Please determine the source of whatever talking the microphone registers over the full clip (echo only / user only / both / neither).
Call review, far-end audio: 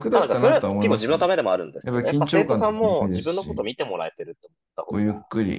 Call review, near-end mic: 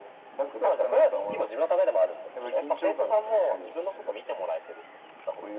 echo only